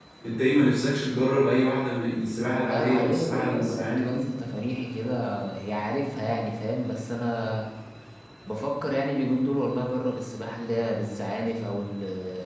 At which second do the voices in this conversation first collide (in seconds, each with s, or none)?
2.6 s